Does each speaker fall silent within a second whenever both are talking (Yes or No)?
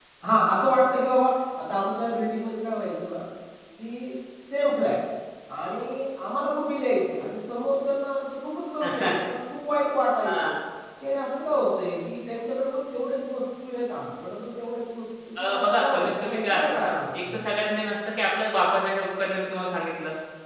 No